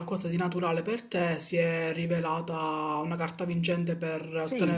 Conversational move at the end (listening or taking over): taking over